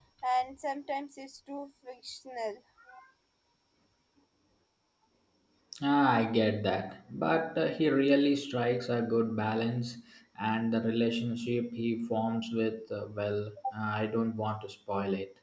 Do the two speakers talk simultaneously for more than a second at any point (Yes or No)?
No